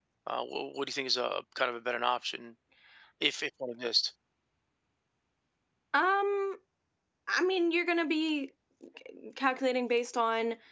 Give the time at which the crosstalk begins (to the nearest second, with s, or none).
none